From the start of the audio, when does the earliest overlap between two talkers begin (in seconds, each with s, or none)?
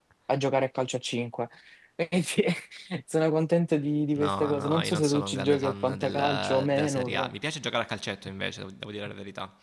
4.2 s